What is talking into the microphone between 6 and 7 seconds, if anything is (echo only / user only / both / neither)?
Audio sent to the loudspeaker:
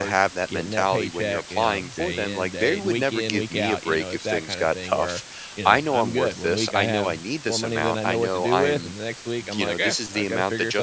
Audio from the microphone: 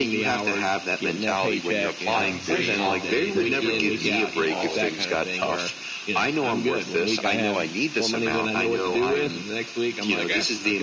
echo only